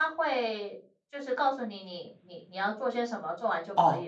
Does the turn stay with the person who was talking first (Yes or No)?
No